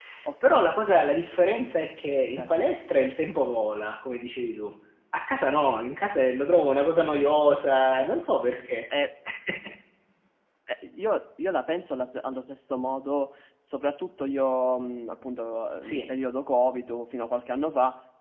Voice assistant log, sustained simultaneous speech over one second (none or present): none